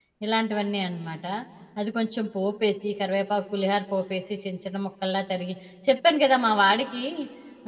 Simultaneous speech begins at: none

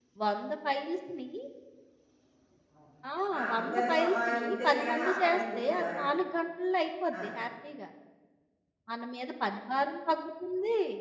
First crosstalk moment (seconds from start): 3.5 s

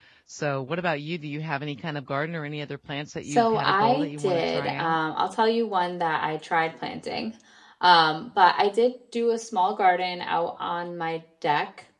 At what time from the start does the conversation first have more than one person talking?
3.3 s

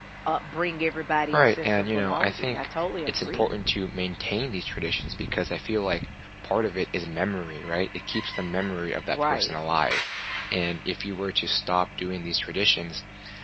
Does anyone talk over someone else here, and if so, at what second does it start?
1.3 s

